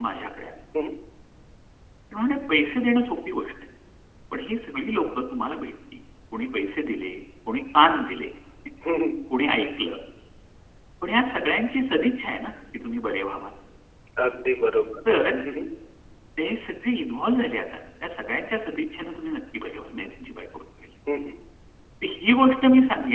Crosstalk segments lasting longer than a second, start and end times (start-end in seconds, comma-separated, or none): none